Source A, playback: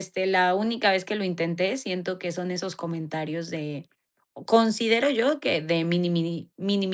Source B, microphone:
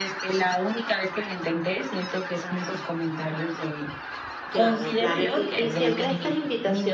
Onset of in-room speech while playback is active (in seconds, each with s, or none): 4.5 s